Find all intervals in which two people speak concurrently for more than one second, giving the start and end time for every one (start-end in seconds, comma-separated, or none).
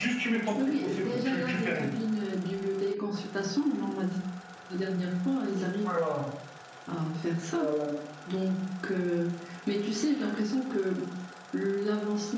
0.5-1.9